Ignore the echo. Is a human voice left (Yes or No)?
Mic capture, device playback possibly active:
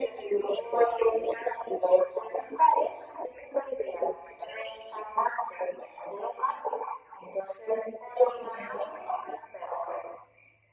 No